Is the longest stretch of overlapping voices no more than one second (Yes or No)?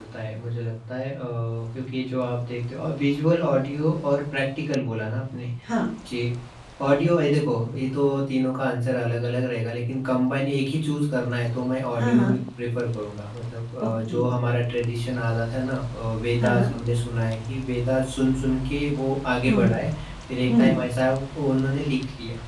Yes